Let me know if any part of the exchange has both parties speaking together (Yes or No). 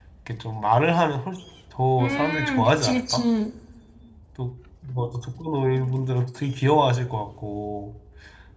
Yes